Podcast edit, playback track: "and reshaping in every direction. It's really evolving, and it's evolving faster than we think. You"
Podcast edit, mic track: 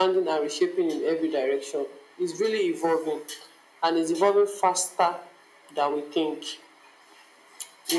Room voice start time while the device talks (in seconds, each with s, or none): none